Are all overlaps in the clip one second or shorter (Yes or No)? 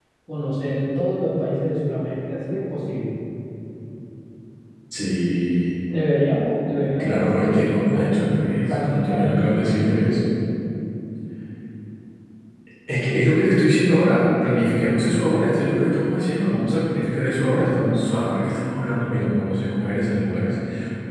No